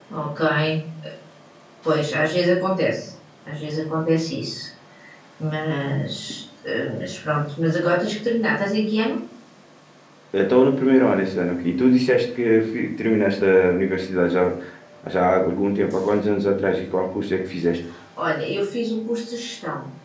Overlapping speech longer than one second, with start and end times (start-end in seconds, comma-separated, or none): none